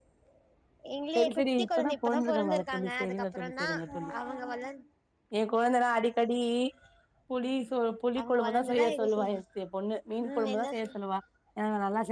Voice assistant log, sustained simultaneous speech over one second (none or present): present